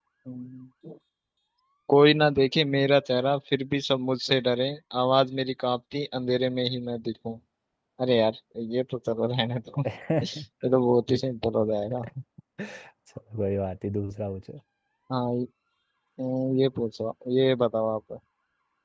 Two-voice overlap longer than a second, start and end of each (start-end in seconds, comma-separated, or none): none